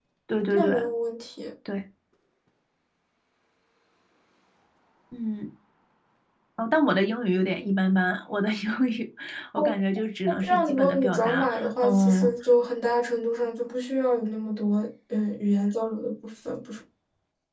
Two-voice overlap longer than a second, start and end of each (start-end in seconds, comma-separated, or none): 10.3-12.3